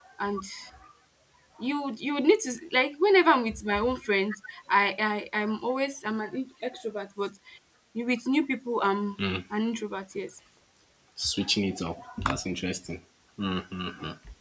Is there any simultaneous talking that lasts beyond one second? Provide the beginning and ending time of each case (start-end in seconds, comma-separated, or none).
none